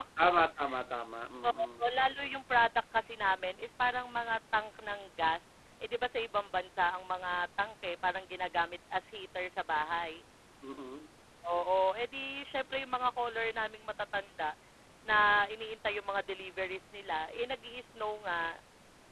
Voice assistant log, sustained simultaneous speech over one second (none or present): none